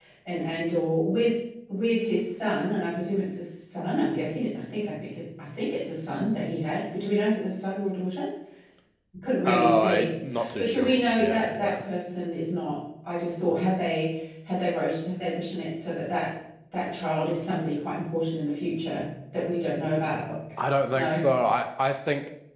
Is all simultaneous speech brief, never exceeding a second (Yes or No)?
No